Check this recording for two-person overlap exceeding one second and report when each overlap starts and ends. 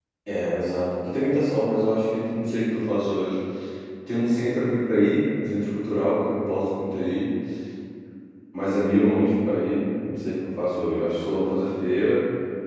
none

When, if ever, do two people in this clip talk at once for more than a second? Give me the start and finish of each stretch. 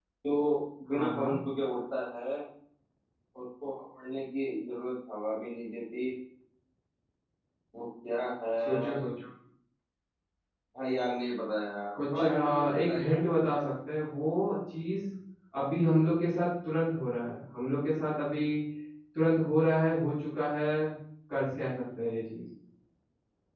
11.9-13.2

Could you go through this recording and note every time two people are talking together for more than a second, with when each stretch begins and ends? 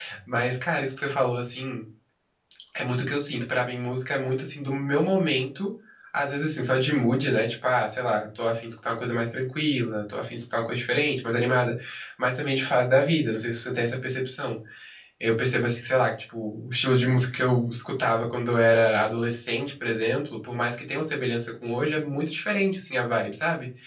none

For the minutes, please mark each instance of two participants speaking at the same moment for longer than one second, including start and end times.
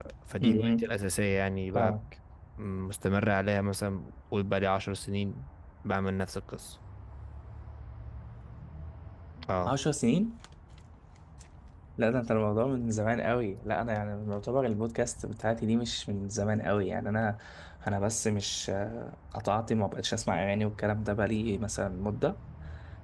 none

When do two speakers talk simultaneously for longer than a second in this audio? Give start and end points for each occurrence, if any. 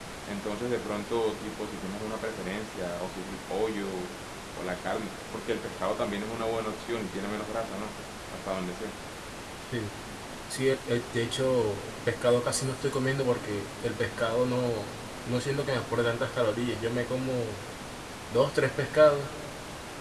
none

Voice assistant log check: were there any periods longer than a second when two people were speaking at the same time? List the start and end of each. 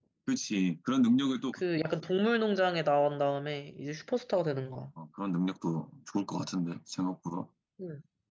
none

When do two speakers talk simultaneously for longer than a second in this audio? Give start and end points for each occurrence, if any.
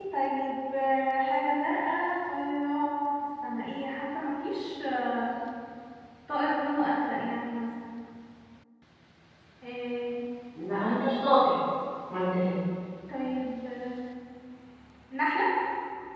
none

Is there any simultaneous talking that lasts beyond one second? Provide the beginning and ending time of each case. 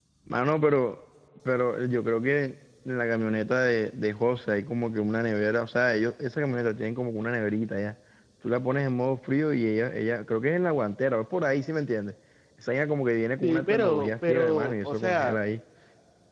13.4-15.4

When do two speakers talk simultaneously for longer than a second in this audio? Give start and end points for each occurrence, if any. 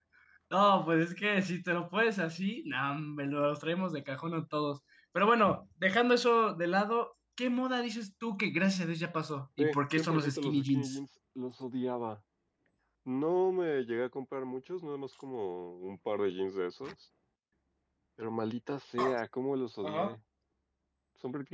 9.6-11.0

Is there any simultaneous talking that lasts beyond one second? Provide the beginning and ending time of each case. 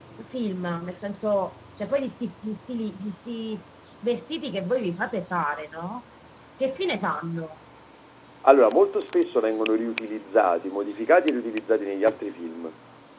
none

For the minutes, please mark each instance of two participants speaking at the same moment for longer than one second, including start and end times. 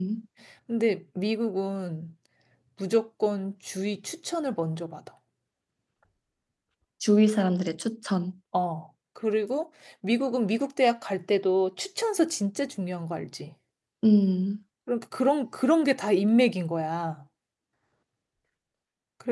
none

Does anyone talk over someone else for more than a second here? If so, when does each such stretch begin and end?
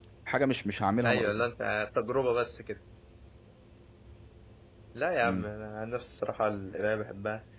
none

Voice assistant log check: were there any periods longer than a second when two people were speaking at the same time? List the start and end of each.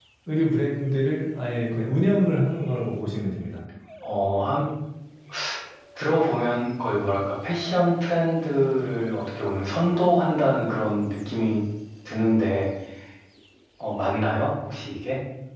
none

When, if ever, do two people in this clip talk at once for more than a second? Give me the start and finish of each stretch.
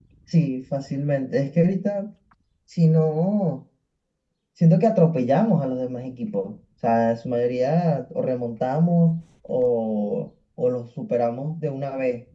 none

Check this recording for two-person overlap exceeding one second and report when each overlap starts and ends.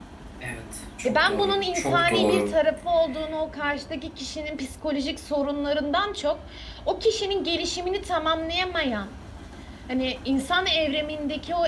1.0-2.5

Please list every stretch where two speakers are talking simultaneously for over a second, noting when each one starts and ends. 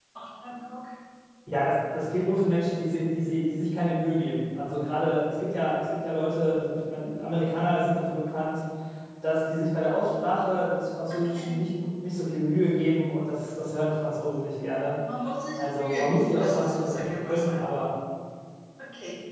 15.6-17.6

